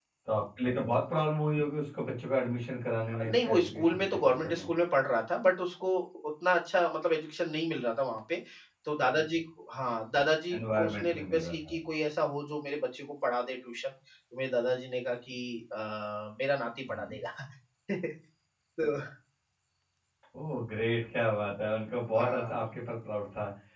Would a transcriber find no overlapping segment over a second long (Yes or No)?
No